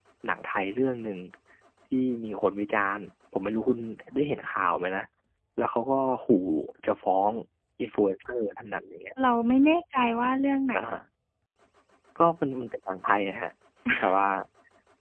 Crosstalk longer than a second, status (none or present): none